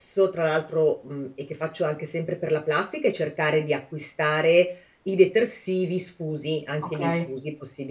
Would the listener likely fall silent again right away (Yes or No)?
Yes